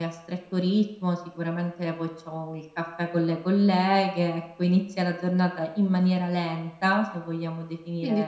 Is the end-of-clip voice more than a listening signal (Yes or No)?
Yes